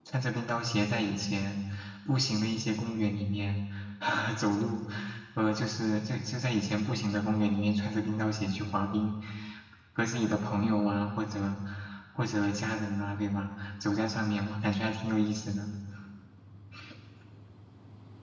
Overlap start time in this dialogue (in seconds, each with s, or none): none